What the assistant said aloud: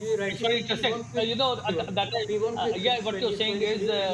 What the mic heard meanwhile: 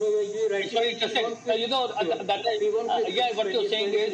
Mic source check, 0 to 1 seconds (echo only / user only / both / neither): echo only